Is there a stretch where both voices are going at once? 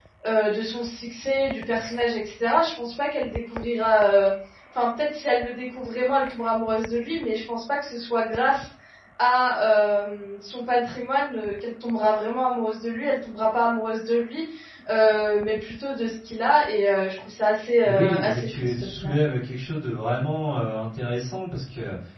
Yes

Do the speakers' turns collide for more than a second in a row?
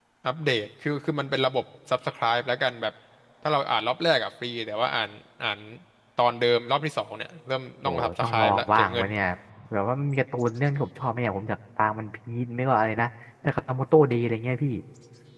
Yes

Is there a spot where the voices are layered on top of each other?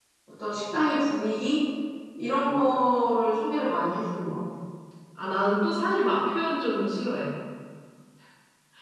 No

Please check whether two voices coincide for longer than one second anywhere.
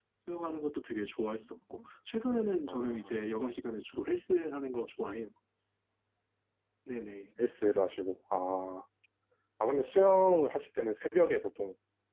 No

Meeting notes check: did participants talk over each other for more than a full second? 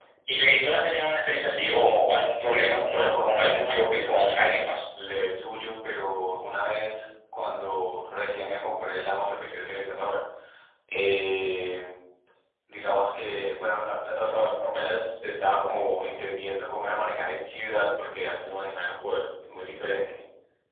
Yes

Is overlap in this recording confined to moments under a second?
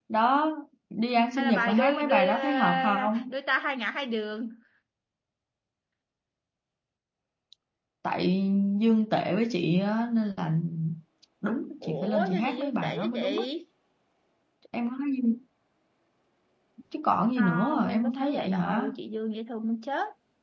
No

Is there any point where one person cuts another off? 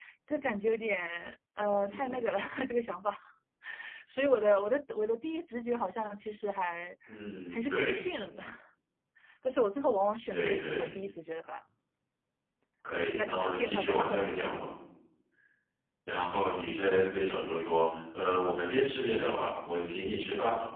Yes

